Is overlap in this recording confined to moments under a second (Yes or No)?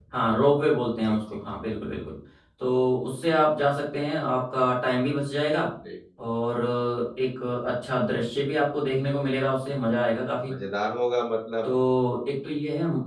Yes